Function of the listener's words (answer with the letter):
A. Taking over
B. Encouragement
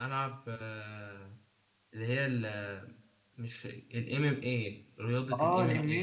A